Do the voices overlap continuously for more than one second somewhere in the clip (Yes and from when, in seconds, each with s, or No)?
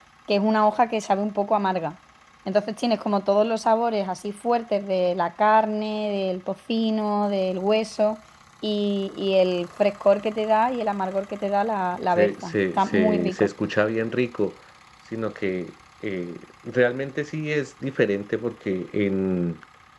Yes, from 12.2 s